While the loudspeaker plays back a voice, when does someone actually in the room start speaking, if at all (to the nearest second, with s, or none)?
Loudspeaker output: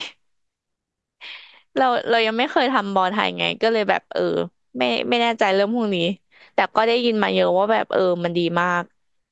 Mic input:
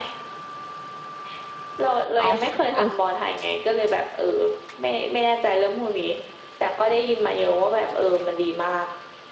2 s